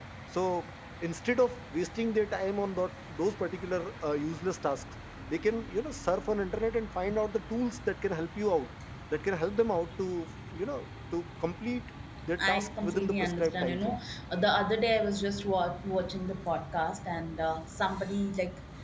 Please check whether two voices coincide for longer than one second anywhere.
Yes, from 12.4 s

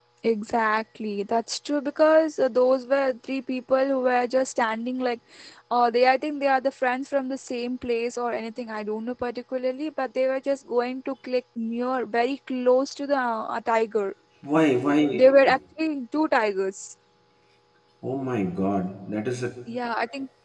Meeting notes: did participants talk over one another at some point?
No

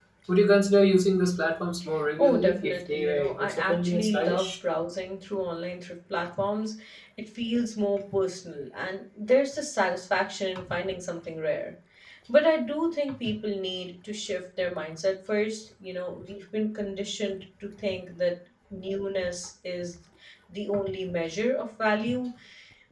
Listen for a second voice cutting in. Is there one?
Yes, from 2.2 s

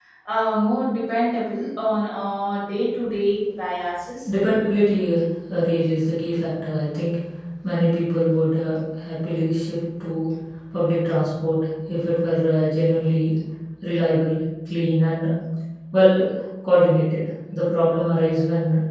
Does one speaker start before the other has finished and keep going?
No

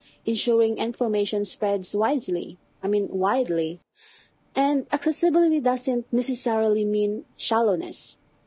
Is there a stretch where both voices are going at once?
No

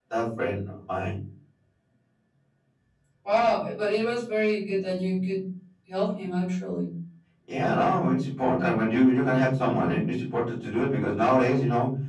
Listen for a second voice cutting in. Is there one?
No

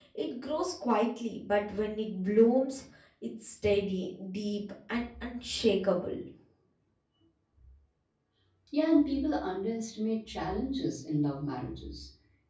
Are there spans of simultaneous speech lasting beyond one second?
No

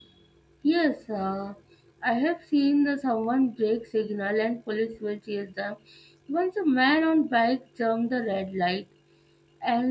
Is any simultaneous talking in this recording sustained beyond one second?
No

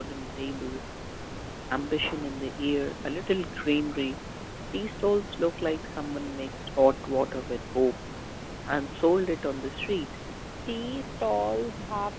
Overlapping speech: No

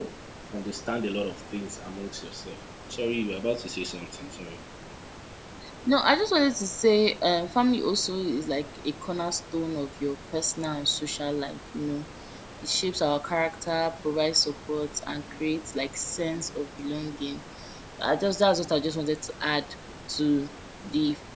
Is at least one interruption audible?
No

